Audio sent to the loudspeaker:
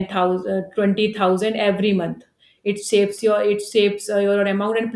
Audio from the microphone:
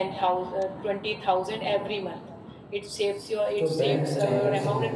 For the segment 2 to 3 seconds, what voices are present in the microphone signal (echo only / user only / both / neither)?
echo only